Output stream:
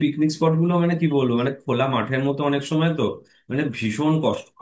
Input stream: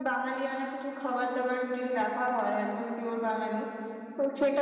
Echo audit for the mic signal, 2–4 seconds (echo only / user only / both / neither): user only